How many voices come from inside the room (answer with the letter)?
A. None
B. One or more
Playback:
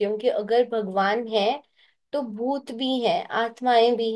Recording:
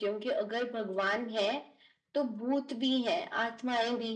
A